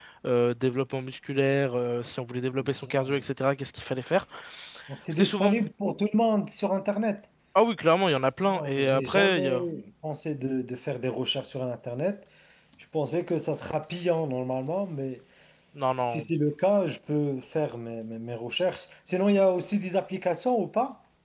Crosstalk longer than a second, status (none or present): present